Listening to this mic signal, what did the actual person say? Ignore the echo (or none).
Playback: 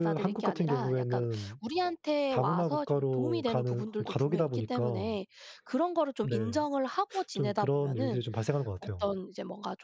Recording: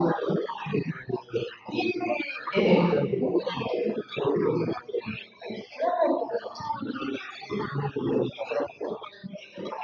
예예.